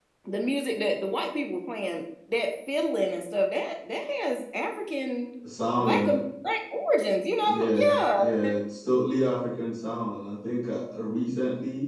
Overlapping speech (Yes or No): Yes